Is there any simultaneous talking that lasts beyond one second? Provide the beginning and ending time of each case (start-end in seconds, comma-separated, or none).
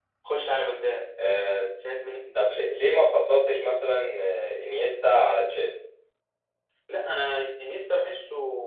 none